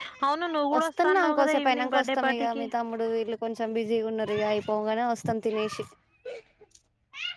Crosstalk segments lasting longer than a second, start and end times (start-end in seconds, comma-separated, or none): 0.8-2.6